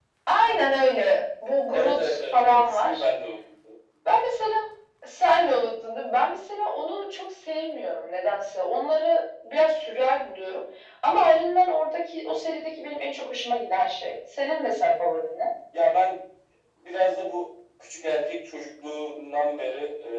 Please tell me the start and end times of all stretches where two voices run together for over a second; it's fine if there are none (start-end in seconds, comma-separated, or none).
1.7-3.0